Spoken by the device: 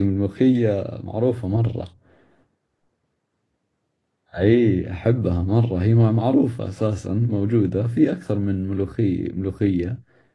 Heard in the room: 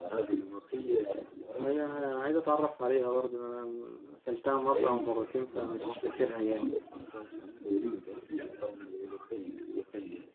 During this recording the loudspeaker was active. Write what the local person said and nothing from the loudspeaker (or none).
هي عايز اتعرف عليها برضه انا اكلتها مره او مرتين فمش فاكرها جامد